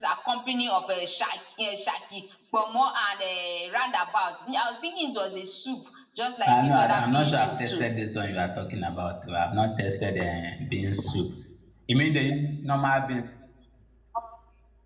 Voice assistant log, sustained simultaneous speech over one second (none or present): present